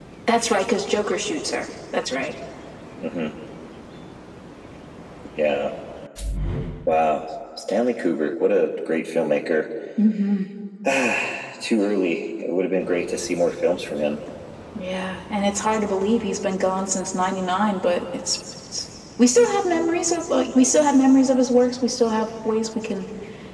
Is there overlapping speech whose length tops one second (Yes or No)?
No